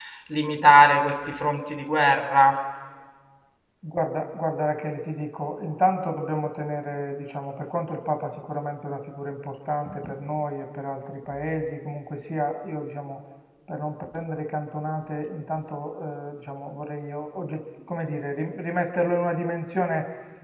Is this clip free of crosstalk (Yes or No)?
Yes